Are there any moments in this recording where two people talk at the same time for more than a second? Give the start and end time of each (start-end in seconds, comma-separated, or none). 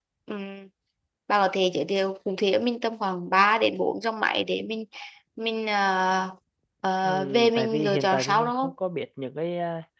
7.0-8.7